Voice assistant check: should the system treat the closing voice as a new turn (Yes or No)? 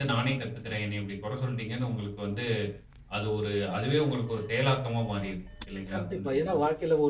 Yes